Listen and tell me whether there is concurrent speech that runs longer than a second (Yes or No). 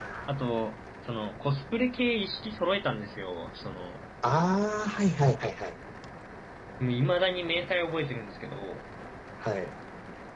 No